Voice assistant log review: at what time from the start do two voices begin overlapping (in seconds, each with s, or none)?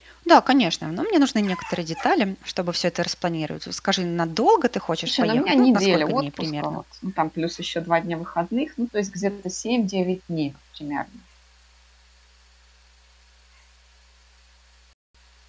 5.1 s